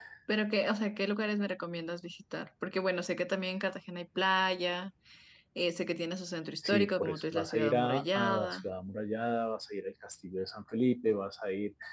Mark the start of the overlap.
6.6 s

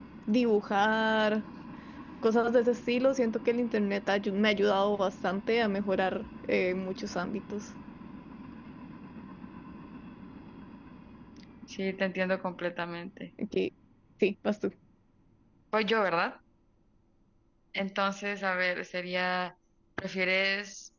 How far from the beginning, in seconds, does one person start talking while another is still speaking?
none

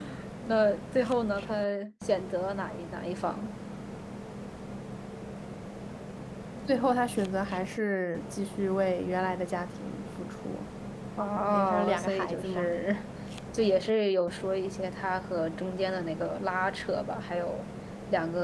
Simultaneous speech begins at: 11.4 s

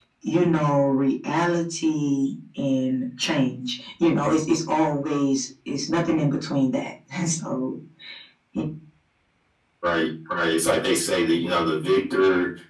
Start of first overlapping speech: none

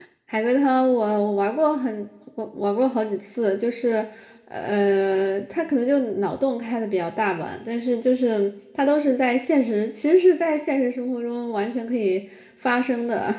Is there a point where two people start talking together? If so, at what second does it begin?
none

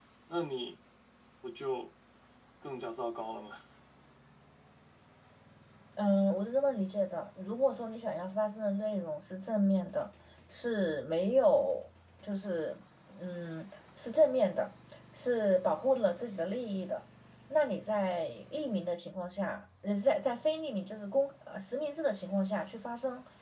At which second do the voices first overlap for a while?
none

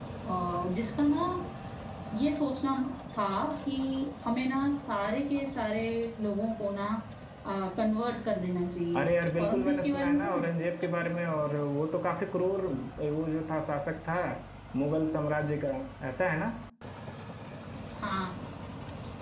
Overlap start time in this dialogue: 8.9 s

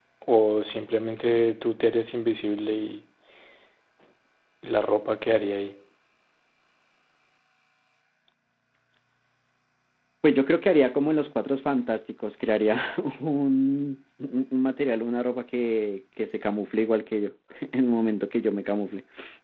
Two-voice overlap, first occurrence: none

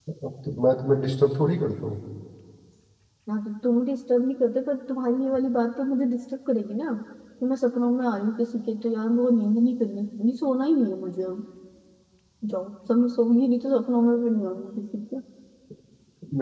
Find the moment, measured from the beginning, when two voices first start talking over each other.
none

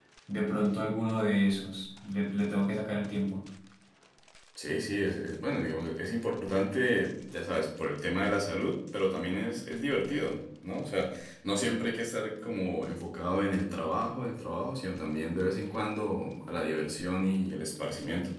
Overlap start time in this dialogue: none

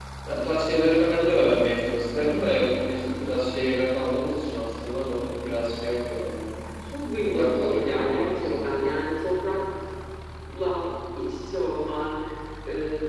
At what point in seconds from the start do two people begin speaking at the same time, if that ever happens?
7.2 s

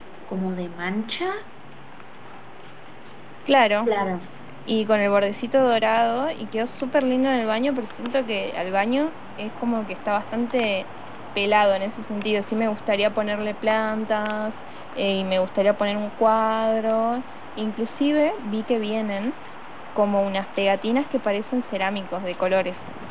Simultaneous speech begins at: none

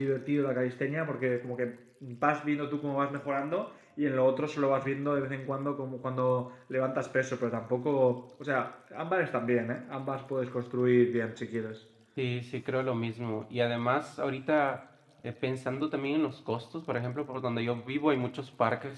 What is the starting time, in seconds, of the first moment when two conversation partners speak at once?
none

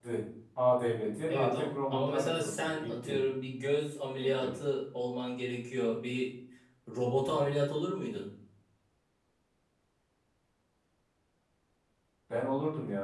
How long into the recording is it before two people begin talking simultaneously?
1.3 s

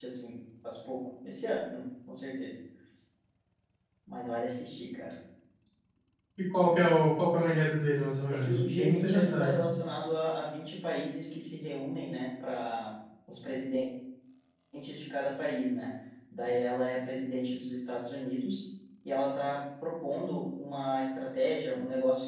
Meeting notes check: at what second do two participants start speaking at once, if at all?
8.3 s

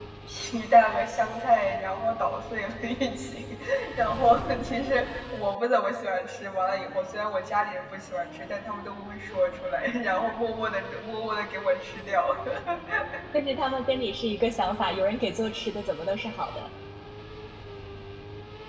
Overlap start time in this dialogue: none

